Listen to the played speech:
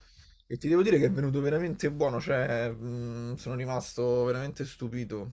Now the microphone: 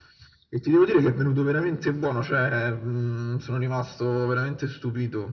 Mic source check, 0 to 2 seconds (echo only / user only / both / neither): echo only